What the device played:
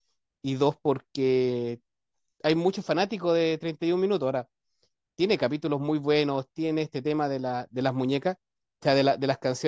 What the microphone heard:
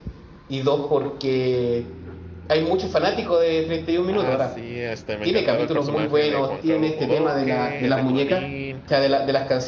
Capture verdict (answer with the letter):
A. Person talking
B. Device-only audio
A